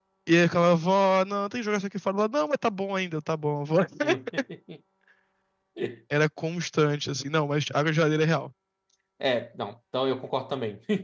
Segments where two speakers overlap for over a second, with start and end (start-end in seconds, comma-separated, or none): none